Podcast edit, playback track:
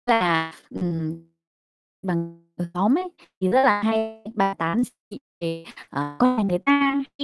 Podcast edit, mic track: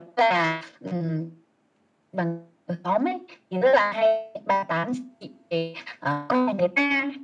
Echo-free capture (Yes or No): No